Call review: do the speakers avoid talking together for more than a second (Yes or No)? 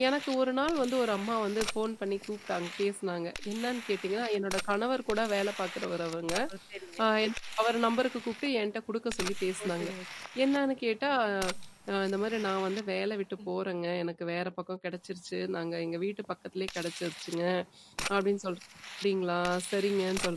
Yes